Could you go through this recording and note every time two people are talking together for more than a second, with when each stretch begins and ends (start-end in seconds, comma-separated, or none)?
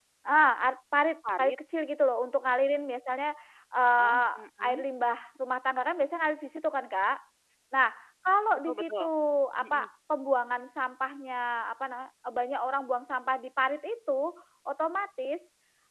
none